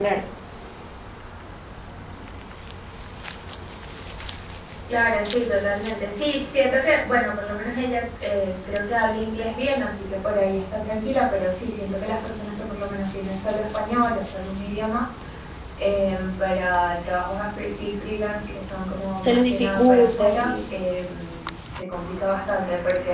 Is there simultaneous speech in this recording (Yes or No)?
Yes